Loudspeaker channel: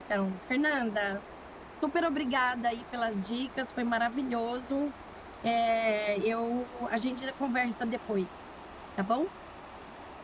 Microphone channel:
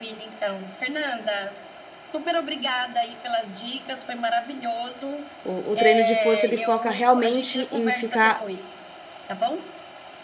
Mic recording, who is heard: both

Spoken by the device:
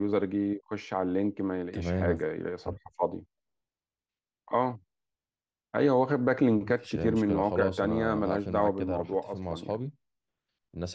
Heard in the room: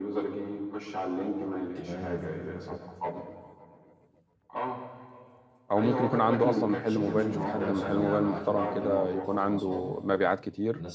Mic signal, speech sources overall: both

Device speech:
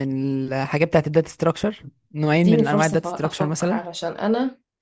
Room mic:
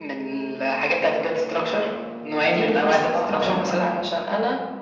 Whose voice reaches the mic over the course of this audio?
both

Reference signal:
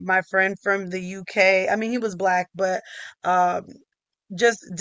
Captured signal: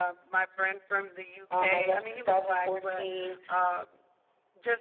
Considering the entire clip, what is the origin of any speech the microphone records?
both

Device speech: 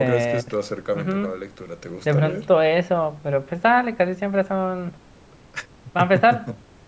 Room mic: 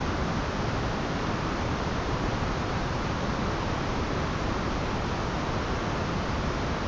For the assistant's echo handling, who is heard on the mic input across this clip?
neither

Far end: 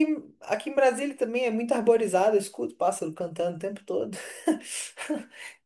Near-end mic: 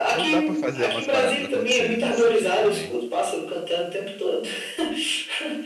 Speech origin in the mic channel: both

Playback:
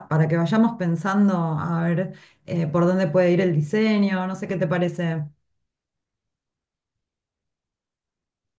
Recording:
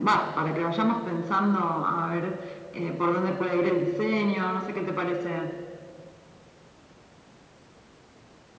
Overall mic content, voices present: echo only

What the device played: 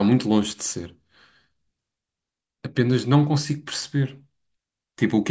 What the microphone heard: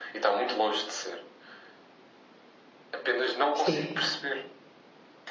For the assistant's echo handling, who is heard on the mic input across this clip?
both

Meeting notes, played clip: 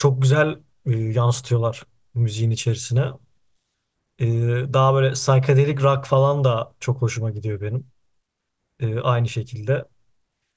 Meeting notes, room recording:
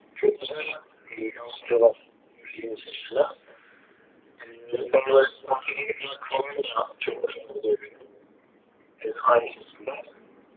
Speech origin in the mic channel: echo only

